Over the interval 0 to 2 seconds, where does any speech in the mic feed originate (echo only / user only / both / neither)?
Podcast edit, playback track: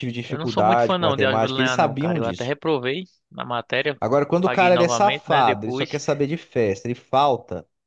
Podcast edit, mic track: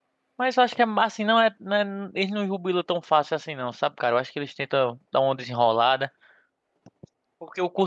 user only